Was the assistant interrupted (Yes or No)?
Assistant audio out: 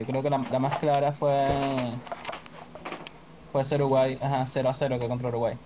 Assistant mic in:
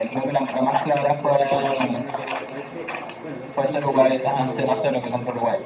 Yes